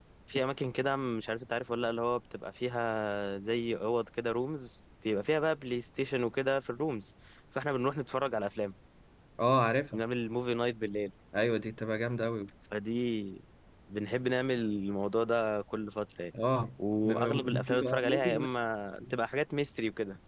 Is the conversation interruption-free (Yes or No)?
No